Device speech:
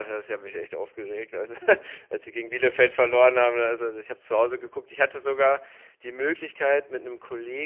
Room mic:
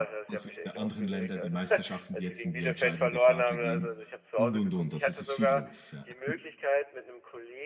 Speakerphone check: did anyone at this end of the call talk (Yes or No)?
Yes